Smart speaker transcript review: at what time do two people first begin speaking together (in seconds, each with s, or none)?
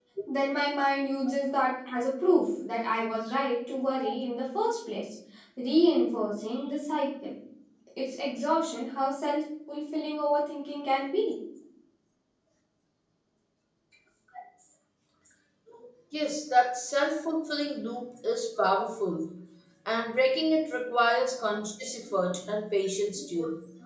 none